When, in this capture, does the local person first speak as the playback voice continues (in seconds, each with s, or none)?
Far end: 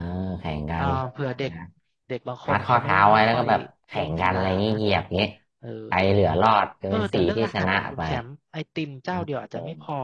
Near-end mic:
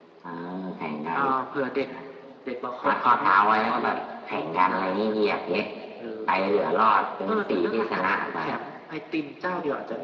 none